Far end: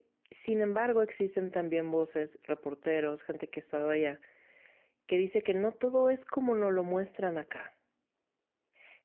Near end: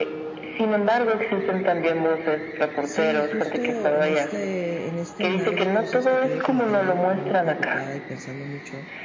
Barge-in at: 2.8 s

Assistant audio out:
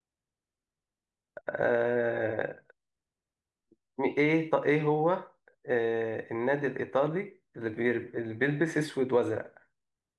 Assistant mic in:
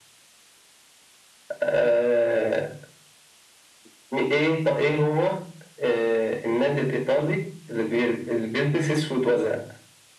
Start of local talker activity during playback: none

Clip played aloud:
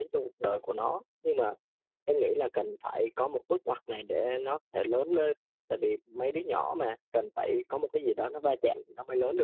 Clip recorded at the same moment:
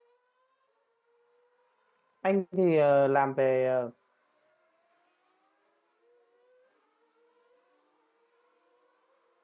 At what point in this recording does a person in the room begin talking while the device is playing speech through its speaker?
2.2 s

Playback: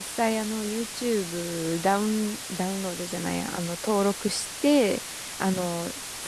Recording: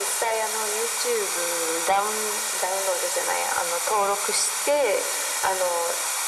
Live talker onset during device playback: none

